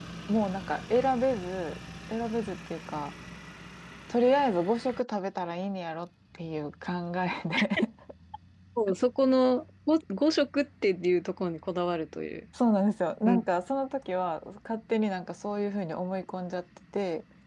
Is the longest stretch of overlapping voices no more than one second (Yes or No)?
Yes